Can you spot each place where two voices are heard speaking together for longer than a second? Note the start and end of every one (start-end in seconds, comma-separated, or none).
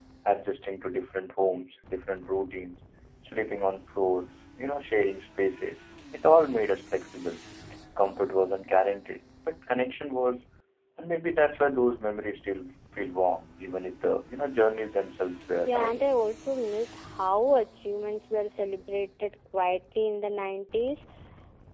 none